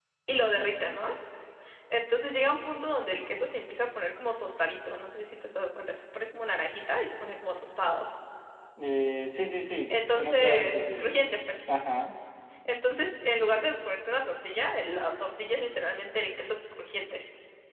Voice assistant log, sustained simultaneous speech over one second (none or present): present